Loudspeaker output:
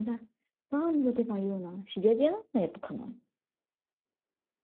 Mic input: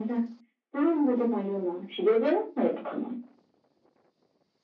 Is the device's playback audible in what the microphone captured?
Yes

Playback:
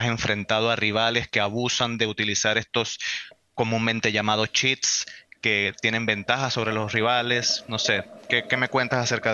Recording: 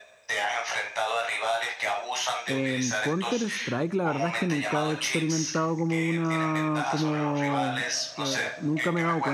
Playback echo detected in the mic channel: Yes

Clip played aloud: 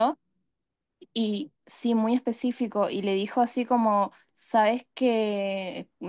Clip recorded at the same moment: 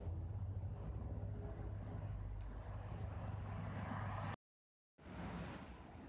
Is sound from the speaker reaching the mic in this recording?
No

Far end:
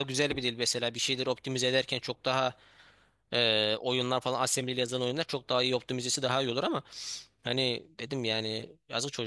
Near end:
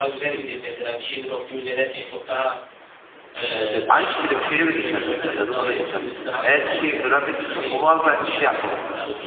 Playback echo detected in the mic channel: Yes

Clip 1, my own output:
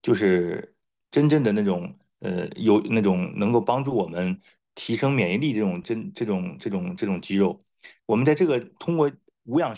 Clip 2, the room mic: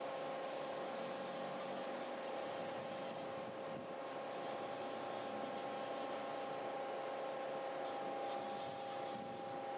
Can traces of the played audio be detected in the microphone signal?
No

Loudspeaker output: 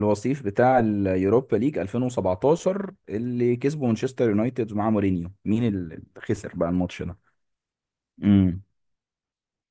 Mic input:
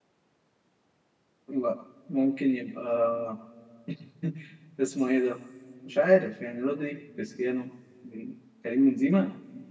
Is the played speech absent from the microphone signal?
Yes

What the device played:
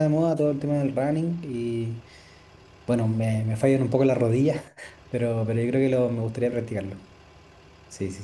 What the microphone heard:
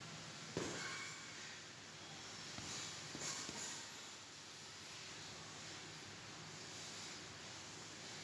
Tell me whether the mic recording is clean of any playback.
Yes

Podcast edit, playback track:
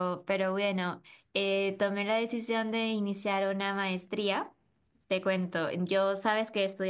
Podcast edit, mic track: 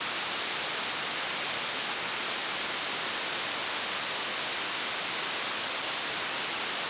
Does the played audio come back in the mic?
No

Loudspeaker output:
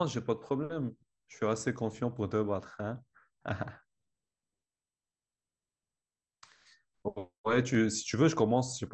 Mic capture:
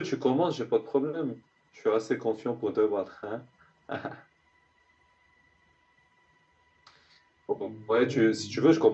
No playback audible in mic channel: No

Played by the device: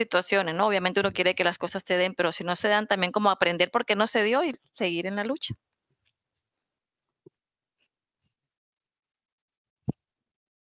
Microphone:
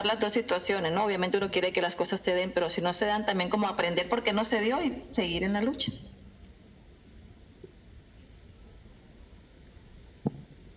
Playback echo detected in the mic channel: Yes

